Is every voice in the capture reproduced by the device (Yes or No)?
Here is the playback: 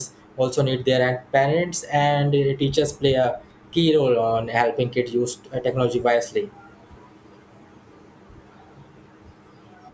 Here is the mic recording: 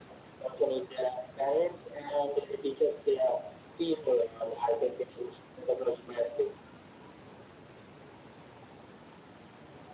Yes